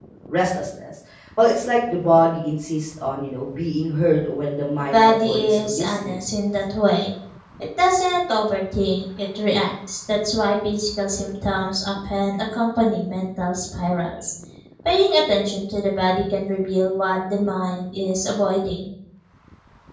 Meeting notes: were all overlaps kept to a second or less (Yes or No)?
No